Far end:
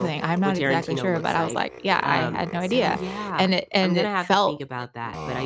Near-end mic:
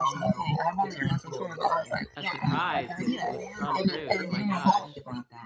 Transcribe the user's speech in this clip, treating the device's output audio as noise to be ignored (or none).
A surprise with with Tom Cruise, my gosh.